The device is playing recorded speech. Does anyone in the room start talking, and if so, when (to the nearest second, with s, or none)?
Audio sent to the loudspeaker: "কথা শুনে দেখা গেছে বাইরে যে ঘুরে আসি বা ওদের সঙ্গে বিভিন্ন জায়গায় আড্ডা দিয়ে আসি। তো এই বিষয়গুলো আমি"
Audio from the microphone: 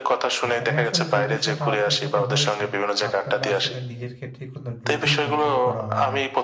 0 s